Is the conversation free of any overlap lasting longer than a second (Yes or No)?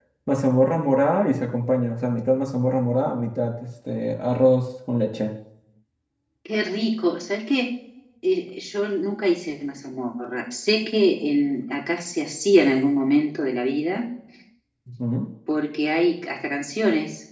Yes